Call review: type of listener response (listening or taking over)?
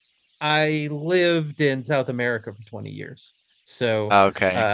listening